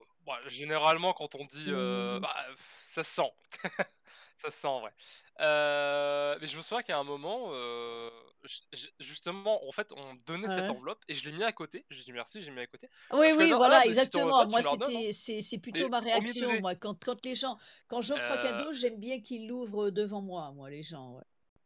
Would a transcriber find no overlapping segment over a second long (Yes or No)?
No